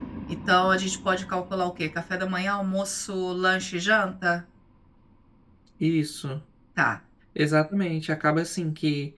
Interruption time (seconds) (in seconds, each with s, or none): none